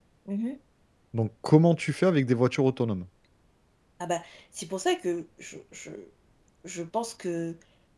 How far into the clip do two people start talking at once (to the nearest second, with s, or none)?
none